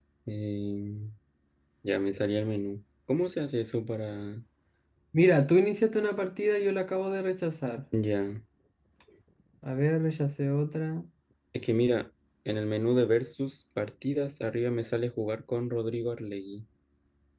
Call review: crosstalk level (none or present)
none